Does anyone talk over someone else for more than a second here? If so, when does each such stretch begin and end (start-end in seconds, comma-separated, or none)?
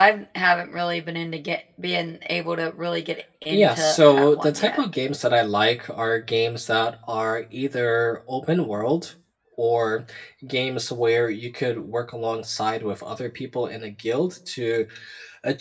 3.5-4.8